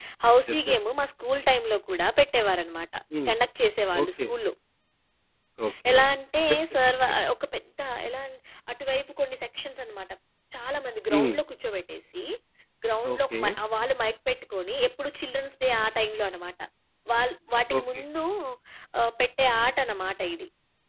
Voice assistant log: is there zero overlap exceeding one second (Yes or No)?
Yes